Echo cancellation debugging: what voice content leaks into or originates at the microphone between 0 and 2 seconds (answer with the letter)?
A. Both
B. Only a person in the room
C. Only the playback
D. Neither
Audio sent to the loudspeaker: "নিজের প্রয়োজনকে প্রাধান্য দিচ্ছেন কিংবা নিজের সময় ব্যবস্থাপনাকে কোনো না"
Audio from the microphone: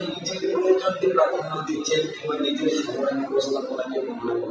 C